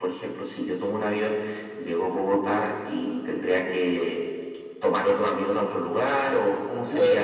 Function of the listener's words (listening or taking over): taking over